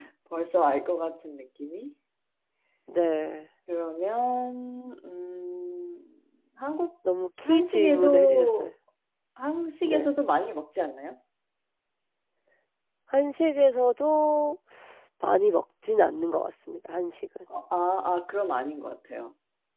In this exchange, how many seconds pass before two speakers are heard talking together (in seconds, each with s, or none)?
7.4 s